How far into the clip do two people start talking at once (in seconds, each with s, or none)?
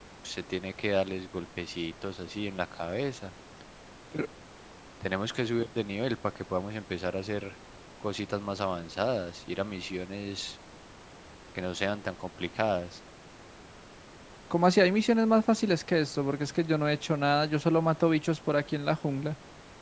none